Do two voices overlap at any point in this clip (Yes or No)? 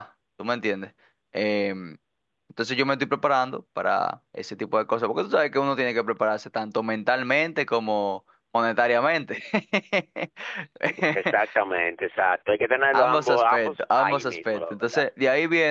Yes